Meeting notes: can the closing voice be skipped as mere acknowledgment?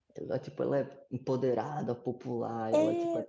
Yes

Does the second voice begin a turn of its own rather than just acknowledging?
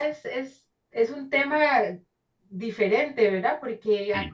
No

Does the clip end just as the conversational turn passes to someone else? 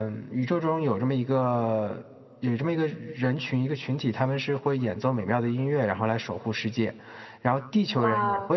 No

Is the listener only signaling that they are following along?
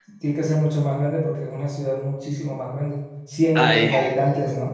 Yes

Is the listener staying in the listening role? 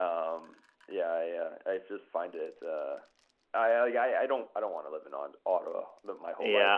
No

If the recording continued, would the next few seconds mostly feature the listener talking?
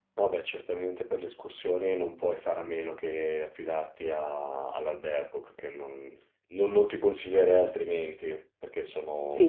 Yes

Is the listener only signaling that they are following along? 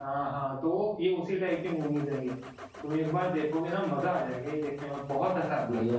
No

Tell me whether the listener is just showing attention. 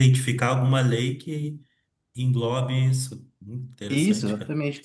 No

